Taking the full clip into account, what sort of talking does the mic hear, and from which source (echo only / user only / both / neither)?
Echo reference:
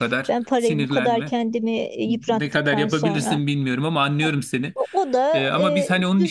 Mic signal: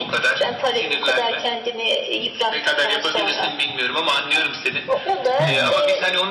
both